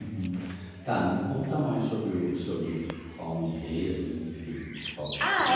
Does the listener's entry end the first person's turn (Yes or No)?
Yes